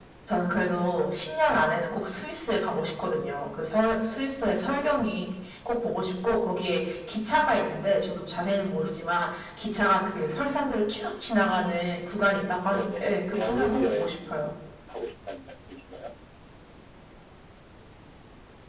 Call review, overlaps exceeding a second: present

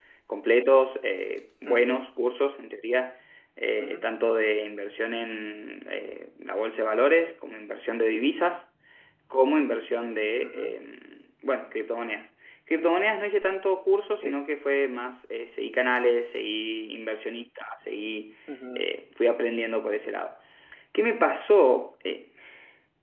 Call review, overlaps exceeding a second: none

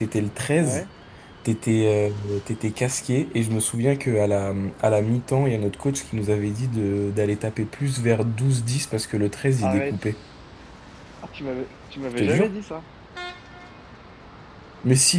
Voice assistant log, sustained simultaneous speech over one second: none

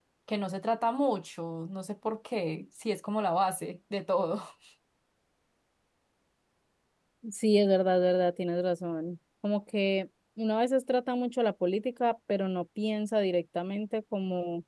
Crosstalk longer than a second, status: none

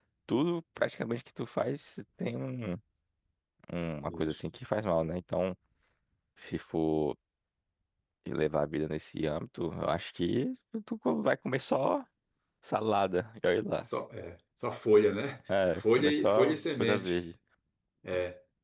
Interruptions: present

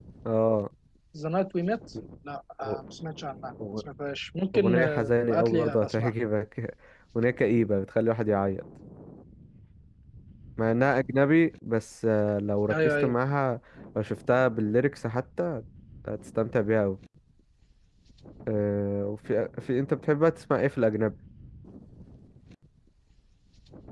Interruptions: present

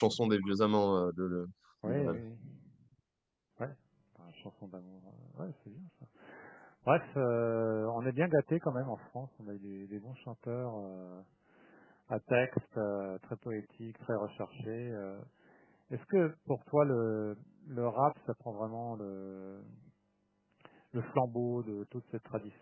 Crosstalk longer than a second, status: none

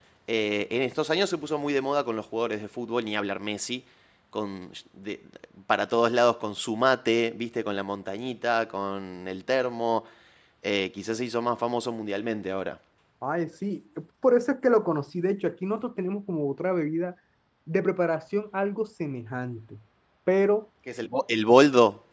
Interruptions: none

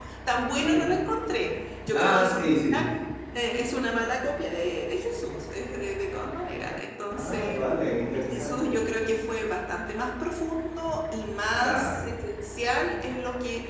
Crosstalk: present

